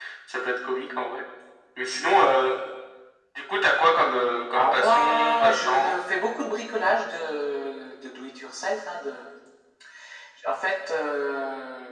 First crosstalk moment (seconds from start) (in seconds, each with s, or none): 4.5 s